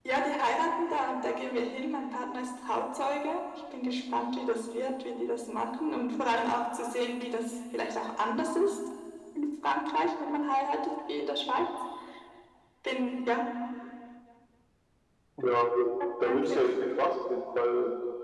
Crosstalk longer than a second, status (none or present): none